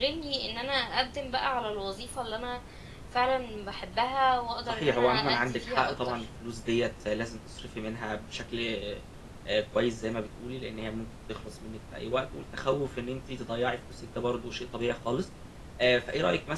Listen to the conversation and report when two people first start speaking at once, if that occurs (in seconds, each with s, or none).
4.7 s